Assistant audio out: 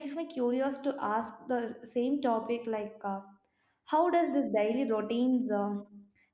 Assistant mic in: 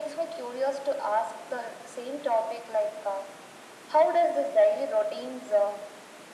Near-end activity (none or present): none